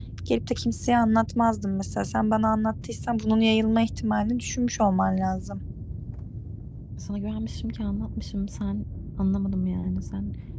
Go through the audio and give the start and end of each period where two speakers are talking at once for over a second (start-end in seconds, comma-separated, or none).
none